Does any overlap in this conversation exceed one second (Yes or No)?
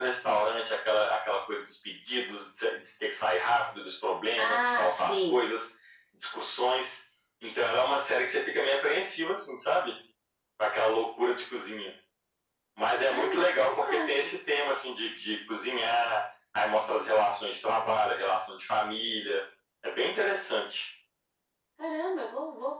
Yes